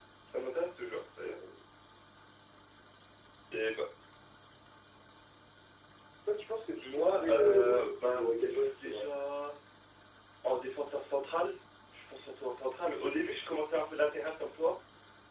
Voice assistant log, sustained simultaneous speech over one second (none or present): present